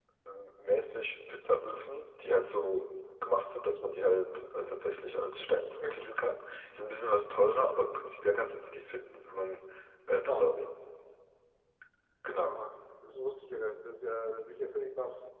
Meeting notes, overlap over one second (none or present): none